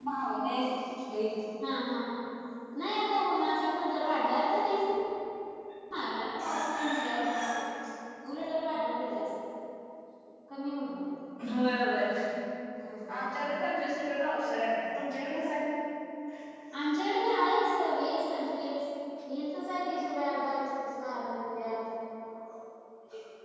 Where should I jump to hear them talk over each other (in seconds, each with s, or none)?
none